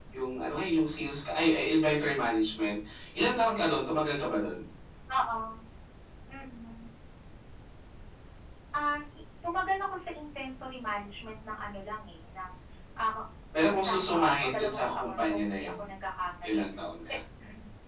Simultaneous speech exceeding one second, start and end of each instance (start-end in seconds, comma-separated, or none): 13.7-15.7